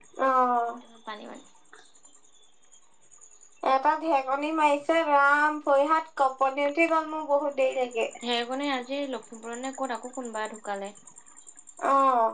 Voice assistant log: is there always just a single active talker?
Yes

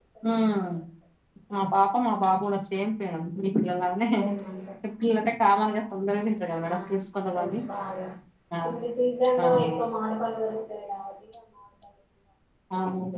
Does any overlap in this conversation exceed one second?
No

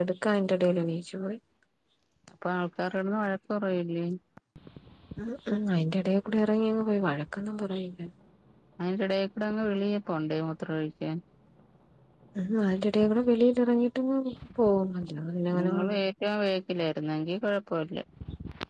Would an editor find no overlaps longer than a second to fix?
Yes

